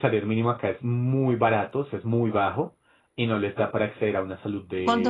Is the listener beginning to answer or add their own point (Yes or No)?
Yes